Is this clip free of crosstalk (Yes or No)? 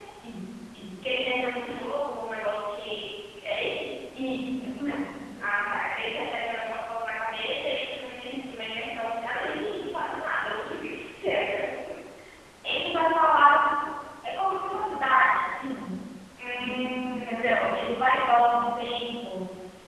No